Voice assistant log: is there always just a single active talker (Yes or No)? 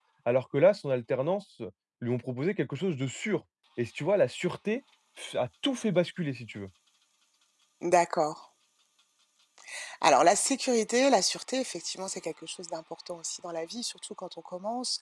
Yes